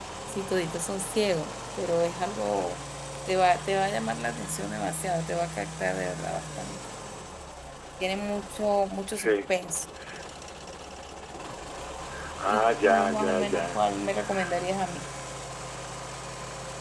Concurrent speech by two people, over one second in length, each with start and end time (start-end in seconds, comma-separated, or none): 12.5-13.8